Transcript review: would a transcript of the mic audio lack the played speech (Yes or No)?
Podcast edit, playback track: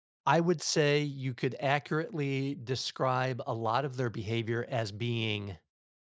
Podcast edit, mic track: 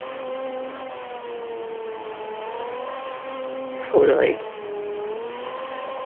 Yes